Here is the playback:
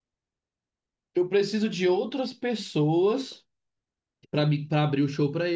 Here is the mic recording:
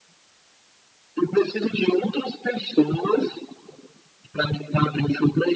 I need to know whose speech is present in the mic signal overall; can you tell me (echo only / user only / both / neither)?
echo only